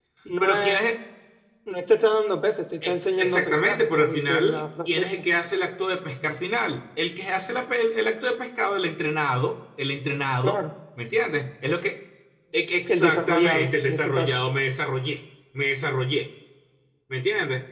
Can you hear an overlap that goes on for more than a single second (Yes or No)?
Yes